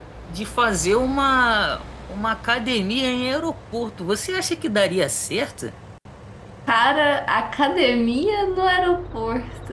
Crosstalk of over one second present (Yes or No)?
No